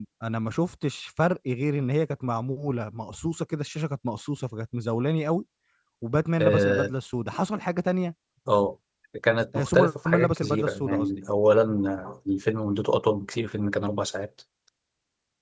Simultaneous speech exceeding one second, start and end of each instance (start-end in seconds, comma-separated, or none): 9.6-11.2